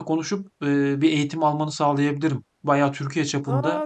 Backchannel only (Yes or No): Yes